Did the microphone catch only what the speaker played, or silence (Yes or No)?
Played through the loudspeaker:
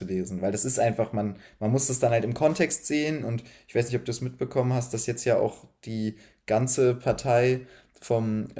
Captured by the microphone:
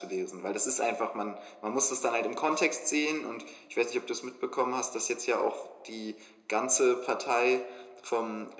Yes